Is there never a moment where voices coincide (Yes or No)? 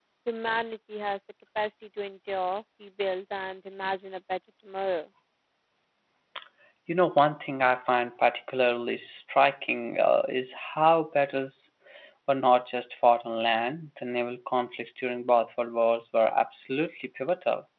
Yes